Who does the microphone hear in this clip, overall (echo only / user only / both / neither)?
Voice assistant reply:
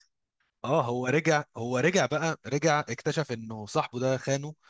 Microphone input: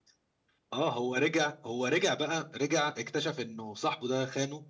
echo only